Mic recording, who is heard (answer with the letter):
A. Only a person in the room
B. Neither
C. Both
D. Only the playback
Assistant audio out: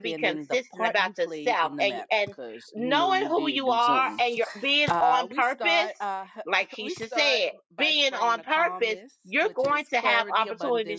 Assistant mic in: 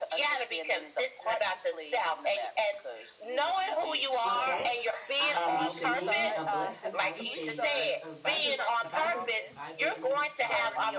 C